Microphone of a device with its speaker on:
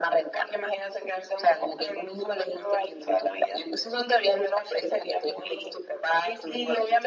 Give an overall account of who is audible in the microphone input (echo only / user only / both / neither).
echo only